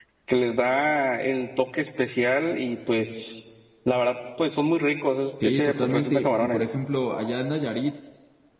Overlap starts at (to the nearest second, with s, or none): 5 s